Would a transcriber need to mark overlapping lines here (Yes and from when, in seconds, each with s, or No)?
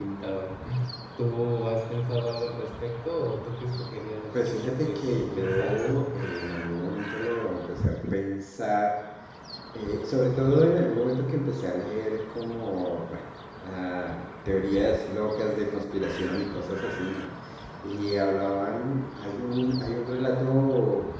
Yes, from 4.3 s